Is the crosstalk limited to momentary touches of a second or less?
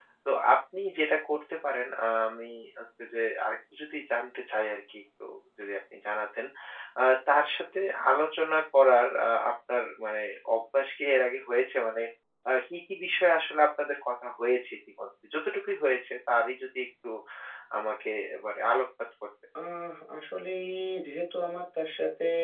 Yes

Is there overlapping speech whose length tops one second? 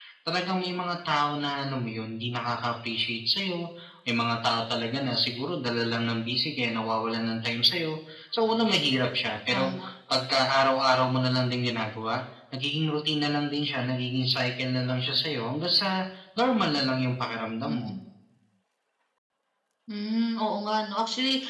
No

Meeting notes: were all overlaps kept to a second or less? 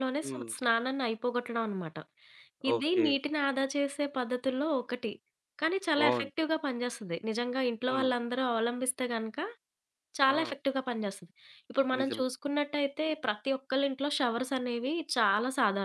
Yes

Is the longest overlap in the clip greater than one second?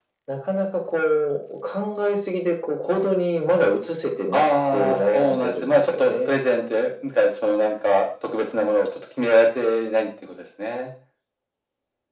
Yes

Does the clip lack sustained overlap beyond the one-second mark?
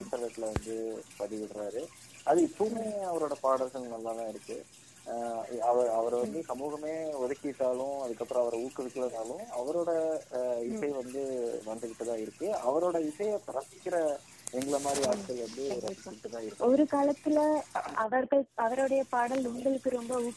Yes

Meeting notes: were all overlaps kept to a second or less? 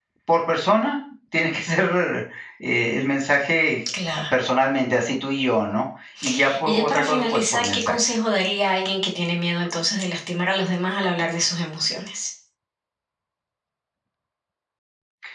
No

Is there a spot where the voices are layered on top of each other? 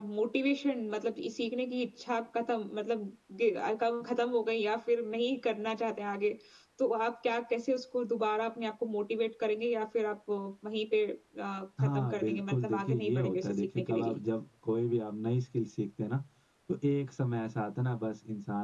Yes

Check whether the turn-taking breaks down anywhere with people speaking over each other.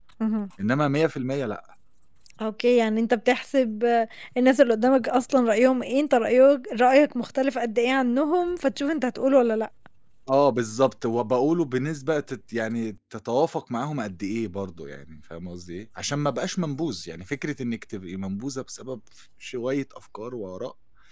No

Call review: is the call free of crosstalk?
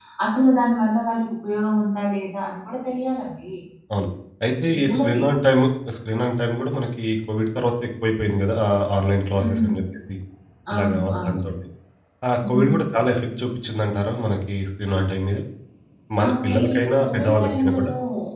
No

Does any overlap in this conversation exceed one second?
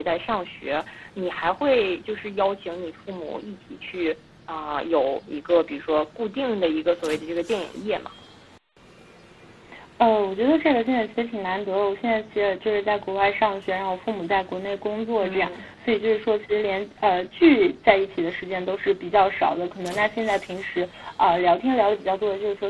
No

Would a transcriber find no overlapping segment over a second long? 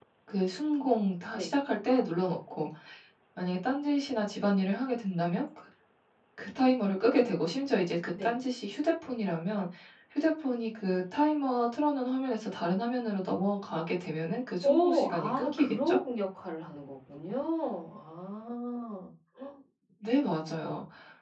No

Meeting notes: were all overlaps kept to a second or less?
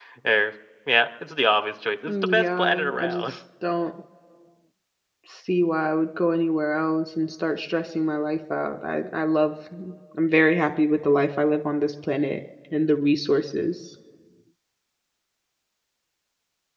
No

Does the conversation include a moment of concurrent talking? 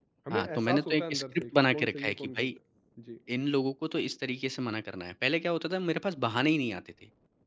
Yes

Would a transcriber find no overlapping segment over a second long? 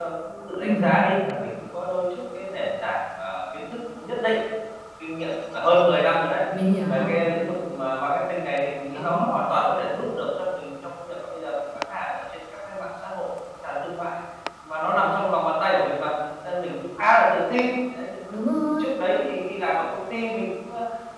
Yes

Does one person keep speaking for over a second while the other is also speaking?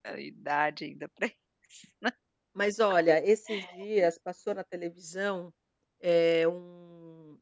No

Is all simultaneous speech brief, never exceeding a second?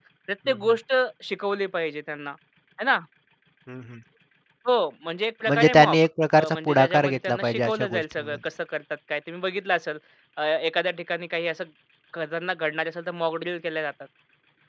No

